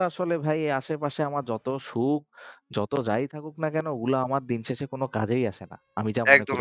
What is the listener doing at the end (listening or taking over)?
taking over